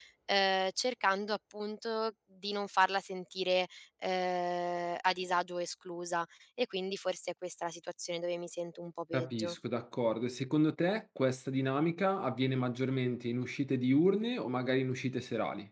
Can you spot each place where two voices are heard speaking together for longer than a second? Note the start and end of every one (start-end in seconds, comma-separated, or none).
none